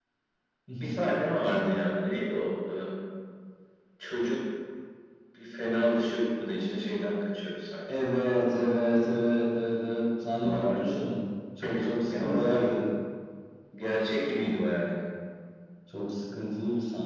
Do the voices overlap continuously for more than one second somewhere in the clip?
No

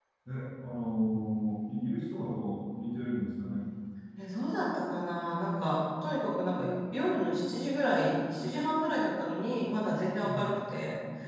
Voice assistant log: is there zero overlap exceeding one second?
Yes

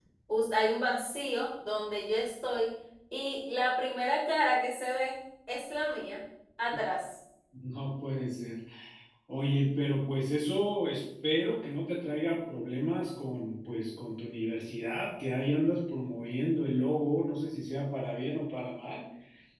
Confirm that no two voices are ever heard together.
Yes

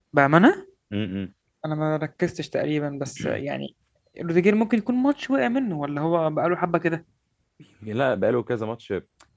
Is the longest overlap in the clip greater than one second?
No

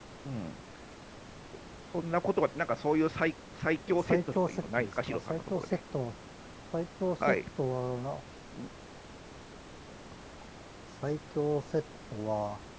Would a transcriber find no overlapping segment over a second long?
No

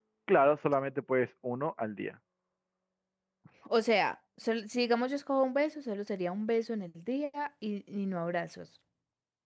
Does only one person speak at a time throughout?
Yes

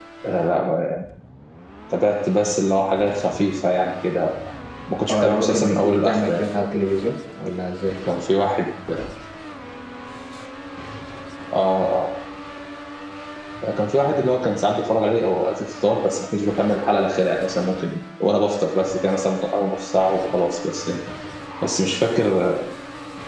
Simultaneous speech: Yes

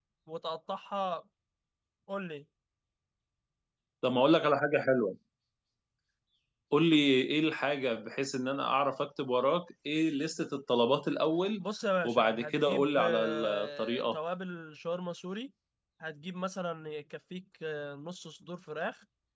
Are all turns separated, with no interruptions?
No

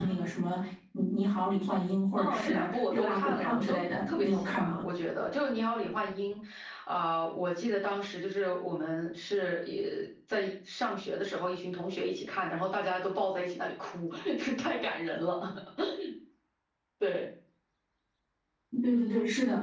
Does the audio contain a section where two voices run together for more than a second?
Yes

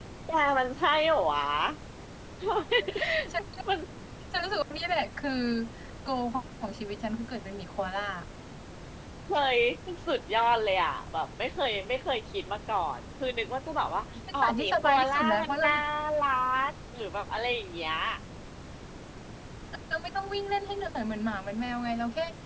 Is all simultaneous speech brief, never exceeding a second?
No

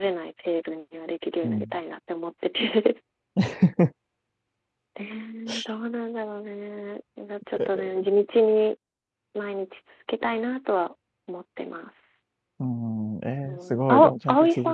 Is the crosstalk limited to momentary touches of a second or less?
No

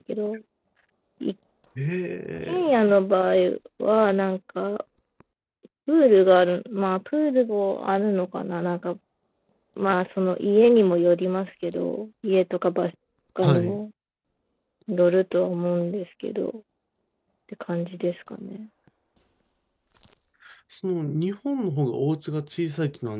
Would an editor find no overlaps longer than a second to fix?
Yes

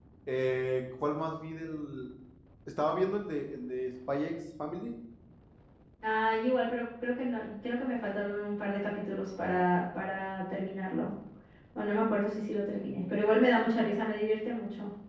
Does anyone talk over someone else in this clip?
No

